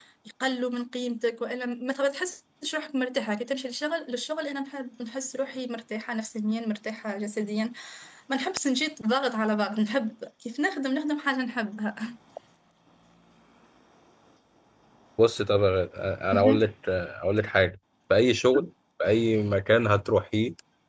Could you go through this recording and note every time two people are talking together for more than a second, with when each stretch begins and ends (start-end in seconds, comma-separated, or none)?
none